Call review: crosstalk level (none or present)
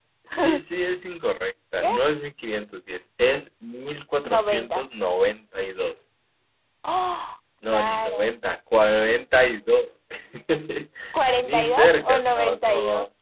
present